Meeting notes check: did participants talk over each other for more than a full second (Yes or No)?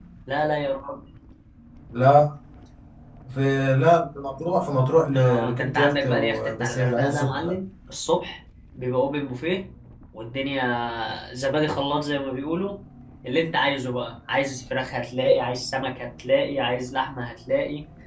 Yes